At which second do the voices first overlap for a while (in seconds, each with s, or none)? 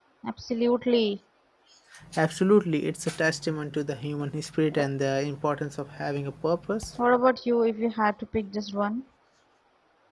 none